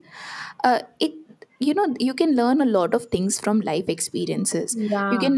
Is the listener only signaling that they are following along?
Yes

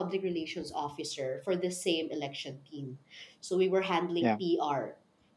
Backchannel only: Yes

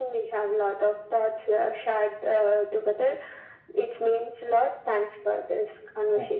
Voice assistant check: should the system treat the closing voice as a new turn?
Yes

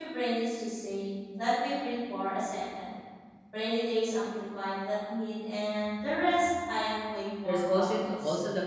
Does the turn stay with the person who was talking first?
No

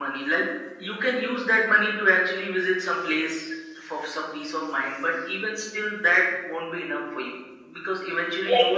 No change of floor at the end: No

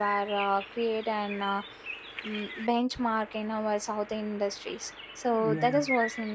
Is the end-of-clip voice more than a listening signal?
No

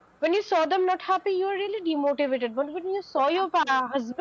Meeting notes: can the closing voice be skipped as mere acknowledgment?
Yes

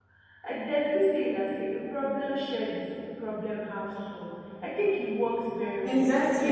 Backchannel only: No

